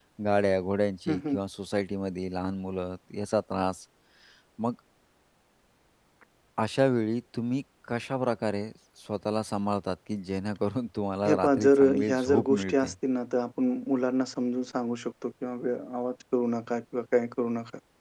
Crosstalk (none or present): present